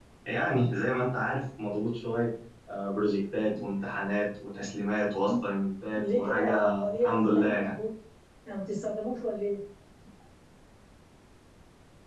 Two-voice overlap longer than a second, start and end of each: 6.0-7.8

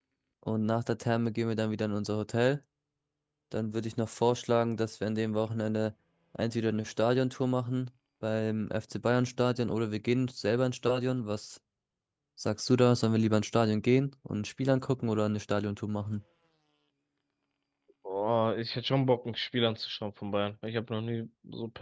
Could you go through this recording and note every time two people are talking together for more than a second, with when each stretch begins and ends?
none

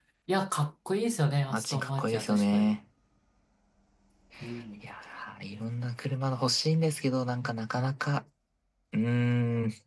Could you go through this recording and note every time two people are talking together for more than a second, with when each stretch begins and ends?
1.5-2.8

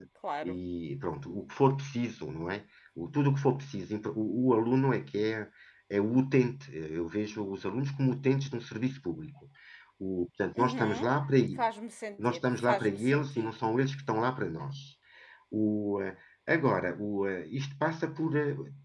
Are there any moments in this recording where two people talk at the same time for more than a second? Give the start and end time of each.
12.3-13.5

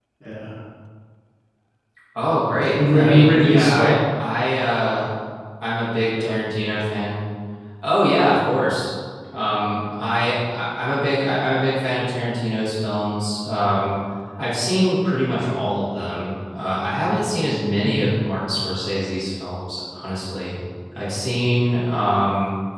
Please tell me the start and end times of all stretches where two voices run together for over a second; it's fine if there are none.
2.7-4.0

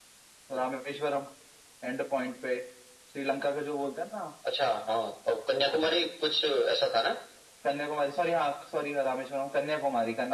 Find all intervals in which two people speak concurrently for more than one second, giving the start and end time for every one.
none

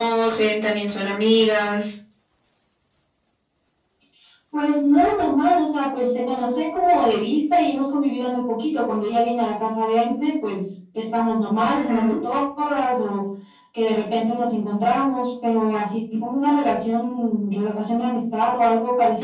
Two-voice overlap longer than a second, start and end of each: none

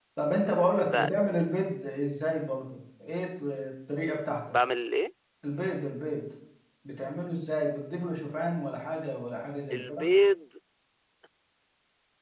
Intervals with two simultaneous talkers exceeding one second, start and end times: none

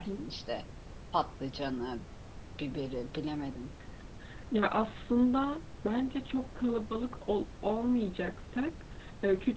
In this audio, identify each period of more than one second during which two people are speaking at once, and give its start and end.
none

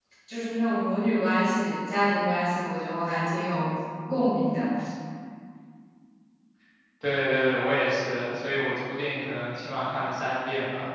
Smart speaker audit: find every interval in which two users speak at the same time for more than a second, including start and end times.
none

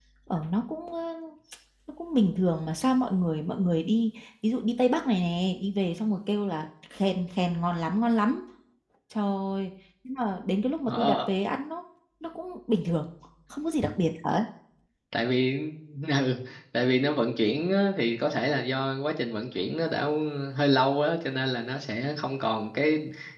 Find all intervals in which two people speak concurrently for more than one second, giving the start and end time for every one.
none

